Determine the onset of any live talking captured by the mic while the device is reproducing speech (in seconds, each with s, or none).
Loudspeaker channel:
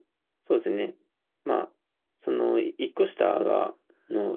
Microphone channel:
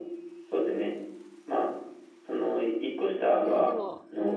3.4 s